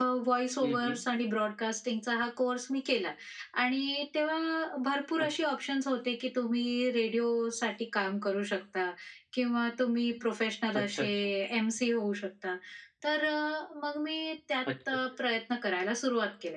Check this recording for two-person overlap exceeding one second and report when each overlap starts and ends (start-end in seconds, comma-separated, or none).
none